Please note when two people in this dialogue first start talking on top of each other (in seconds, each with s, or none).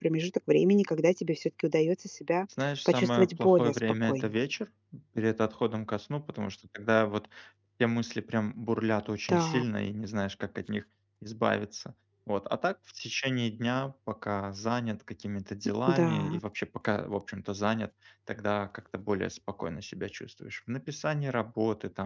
2.8 s